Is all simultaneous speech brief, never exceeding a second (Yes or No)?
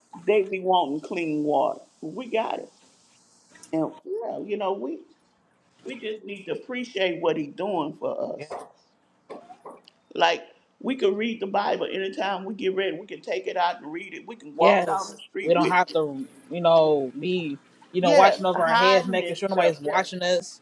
No